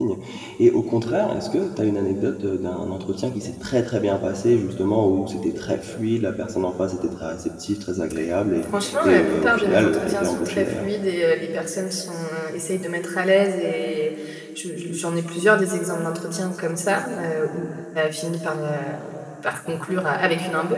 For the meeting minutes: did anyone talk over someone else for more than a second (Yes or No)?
Yes